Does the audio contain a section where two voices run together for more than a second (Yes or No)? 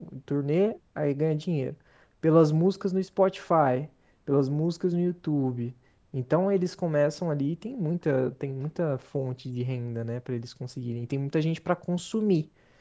No